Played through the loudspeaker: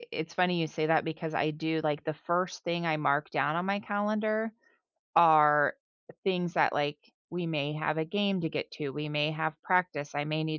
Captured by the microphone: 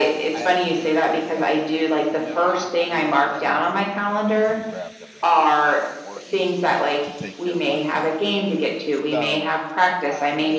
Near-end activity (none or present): present